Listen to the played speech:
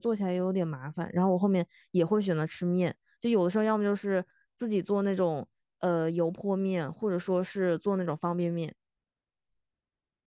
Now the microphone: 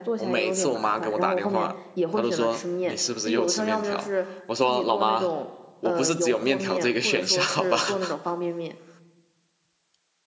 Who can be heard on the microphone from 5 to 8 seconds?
both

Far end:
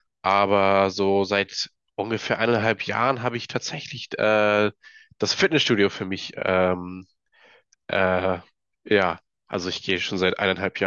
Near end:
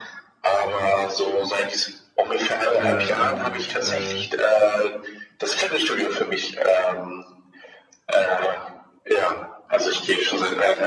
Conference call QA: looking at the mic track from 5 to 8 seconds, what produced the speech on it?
echo only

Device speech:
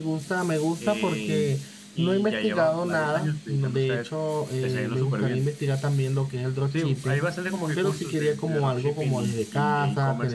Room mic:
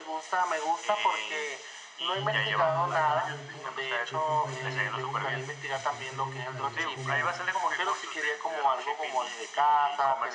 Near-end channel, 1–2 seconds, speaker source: echo only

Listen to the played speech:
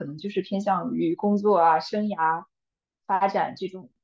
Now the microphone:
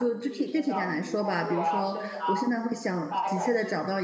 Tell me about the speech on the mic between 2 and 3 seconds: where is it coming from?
both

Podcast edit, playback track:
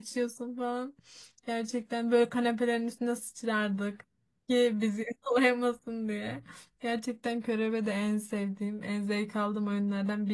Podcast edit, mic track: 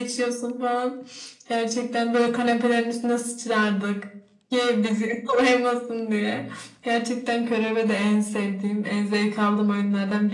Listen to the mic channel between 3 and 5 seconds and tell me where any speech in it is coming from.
echo only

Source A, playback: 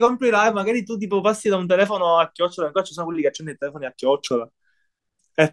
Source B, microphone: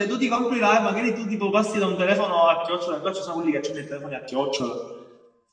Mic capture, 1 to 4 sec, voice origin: echo only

